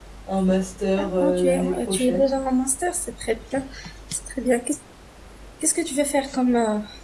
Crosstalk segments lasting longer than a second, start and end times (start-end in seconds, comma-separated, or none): 1.0-2.3